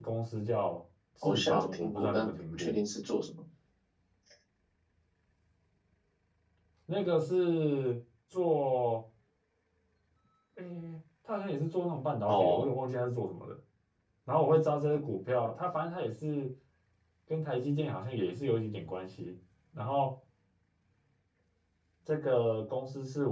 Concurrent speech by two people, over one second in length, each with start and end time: 1.2-2.7

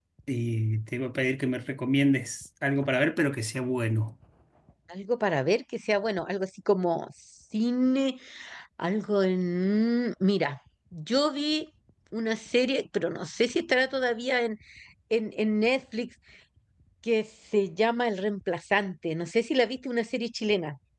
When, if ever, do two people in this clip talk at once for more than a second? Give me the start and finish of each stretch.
none

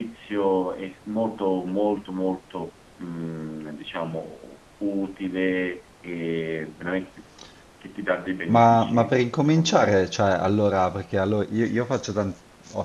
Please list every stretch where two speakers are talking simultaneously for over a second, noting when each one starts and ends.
8.5-9.9

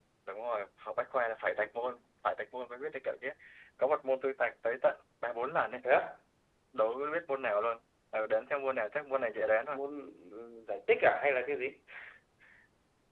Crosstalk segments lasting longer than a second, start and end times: none

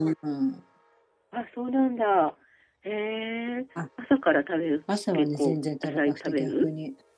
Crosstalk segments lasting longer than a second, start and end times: 5.1-6.7

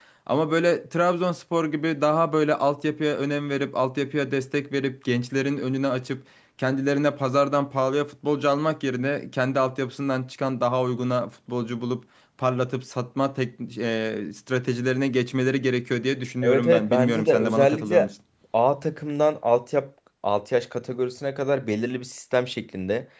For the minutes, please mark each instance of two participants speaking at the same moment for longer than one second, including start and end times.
16.4-18.1

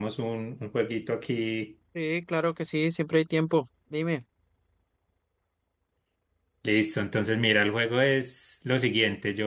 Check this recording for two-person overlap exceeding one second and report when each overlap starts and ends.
none

